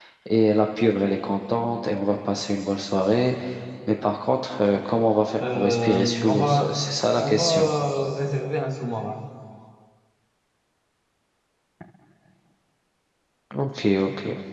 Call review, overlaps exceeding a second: present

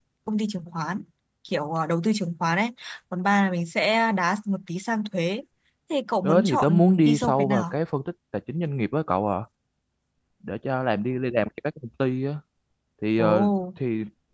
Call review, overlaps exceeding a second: present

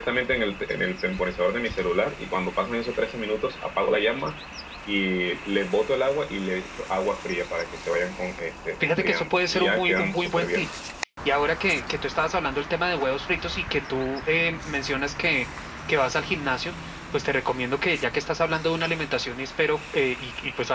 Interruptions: present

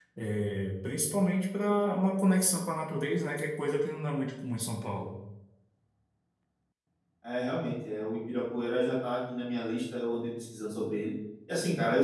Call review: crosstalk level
none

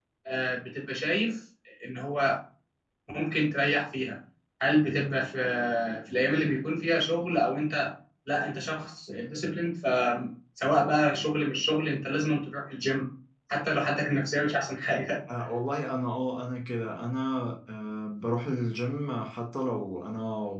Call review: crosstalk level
none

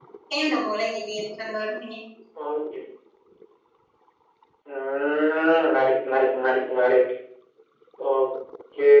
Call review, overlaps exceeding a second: none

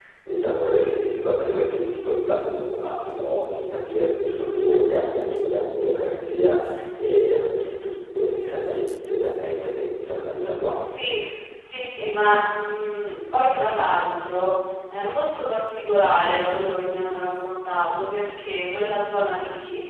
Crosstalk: none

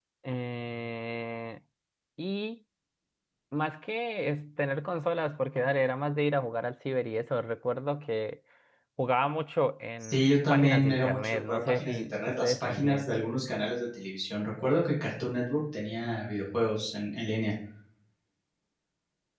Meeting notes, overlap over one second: present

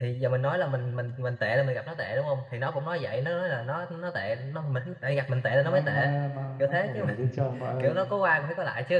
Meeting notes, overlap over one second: present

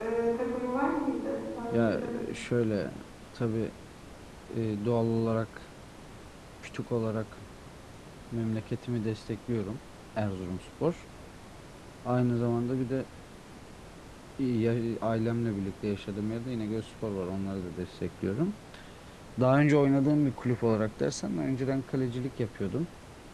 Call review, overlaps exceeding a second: none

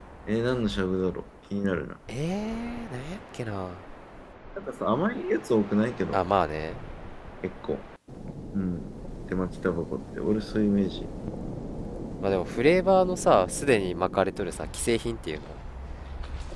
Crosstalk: none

